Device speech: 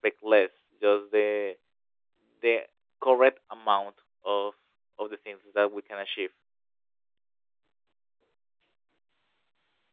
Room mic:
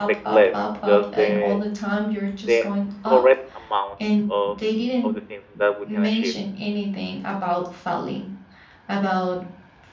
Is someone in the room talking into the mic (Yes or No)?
Yes